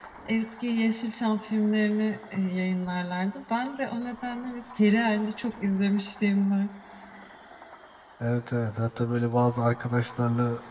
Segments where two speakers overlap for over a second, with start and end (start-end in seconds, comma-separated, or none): none